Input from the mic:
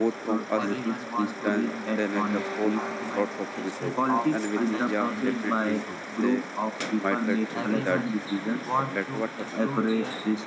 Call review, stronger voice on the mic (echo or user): echo